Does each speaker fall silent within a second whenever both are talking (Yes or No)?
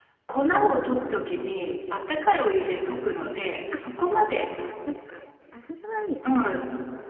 Yes